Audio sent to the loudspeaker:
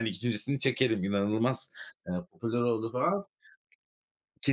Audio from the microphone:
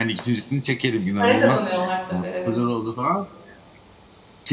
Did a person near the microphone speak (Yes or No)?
Yes